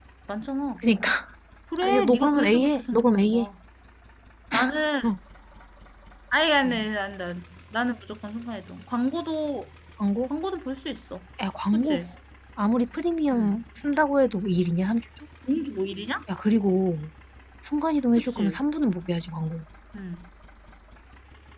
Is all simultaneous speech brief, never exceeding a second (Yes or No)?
No